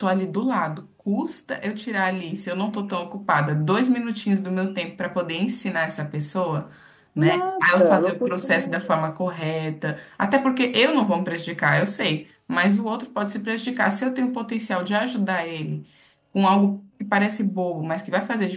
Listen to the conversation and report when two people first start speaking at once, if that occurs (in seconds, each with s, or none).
7.2 s